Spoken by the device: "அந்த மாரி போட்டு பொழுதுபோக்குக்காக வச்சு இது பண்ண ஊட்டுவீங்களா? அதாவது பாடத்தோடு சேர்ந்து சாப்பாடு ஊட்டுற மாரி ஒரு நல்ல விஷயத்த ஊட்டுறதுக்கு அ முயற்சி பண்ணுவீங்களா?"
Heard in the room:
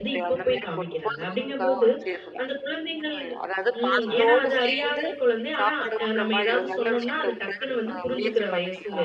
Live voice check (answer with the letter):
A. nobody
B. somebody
B